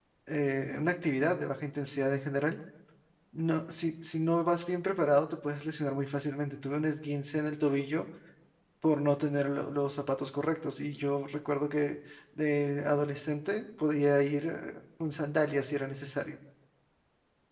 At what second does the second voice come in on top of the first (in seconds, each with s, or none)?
none